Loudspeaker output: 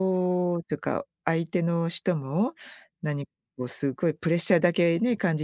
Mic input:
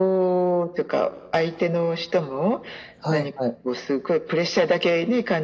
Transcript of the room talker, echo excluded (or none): はいはい。